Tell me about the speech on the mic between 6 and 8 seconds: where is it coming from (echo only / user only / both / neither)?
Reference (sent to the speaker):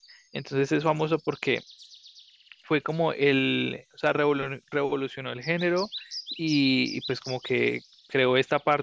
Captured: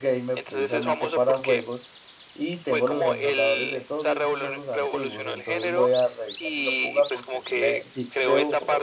both